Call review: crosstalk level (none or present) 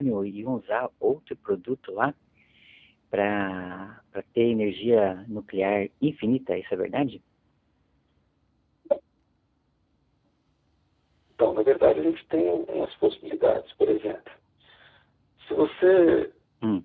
none